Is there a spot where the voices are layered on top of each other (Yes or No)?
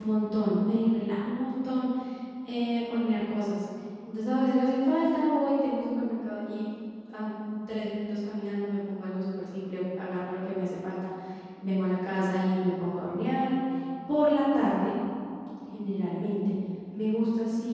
No